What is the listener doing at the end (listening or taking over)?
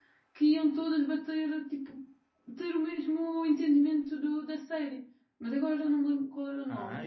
taking over